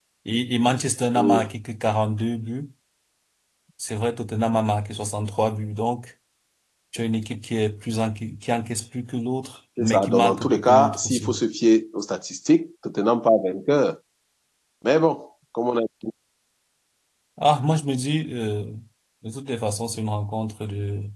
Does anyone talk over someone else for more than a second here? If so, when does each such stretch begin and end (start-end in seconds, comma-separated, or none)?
9.8-11.3